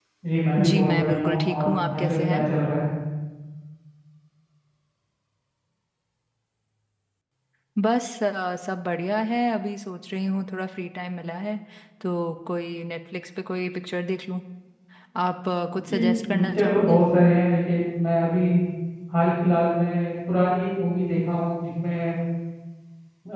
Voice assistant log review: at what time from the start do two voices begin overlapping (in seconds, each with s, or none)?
0.7 s